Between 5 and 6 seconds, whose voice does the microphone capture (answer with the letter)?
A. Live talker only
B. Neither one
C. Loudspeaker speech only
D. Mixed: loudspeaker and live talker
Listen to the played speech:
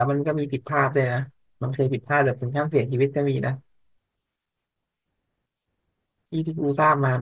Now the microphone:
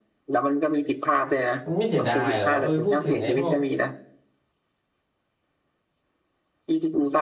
B